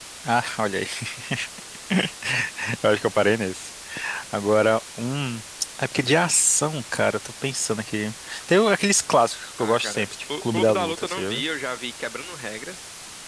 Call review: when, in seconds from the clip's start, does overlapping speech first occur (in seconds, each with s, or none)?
9.6 s